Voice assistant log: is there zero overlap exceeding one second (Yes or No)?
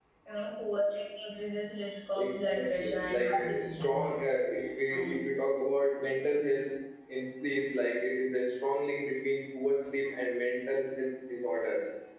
No